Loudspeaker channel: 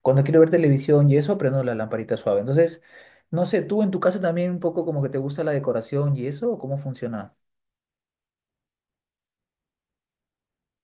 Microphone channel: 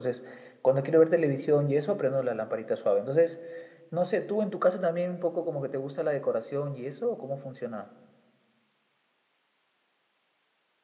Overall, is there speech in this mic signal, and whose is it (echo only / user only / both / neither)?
echo only